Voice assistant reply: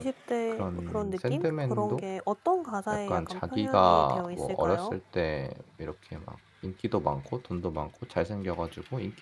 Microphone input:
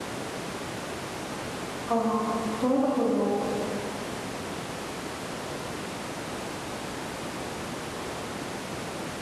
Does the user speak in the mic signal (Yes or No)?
Yes